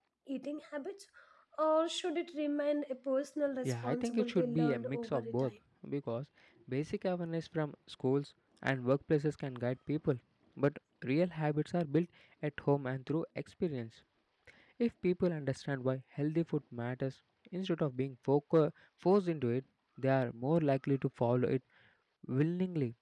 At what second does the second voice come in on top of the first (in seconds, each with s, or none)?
3.6 s